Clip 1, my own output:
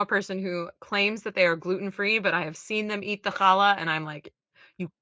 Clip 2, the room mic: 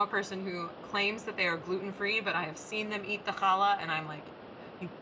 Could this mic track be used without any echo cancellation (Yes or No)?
No